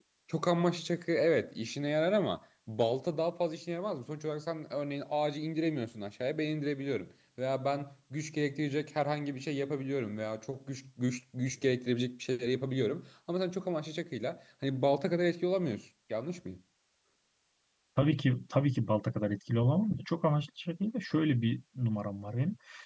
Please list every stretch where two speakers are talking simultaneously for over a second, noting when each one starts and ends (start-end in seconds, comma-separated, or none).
none